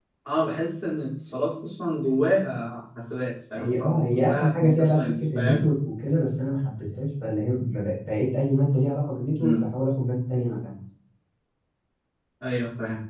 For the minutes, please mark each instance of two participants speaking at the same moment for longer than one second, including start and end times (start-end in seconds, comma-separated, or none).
3.5-5.6